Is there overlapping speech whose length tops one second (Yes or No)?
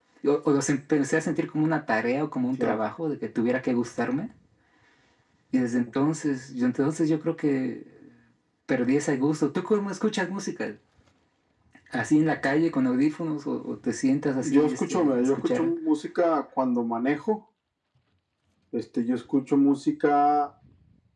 Yes